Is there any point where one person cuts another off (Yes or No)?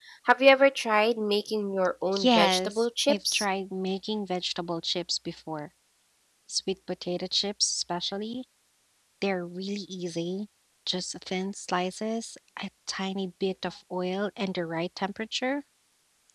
Yes